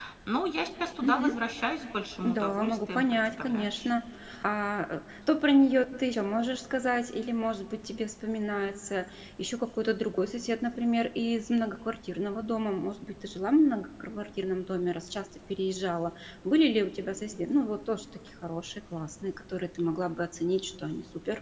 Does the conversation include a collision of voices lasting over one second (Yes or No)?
Yes